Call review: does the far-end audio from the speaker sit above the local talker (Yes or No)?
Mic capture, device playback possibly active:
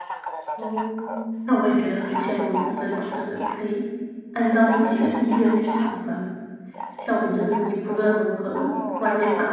No